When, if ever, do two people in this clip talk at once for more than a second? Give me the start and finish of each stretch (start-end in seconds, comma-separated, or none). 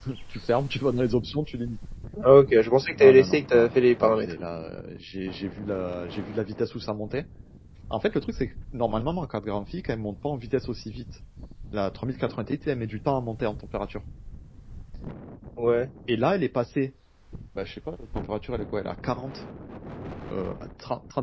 3.0-4.3